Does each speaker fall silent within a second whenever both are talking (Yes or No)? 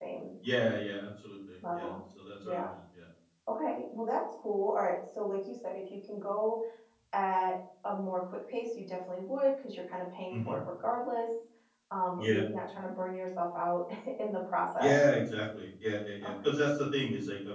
Yes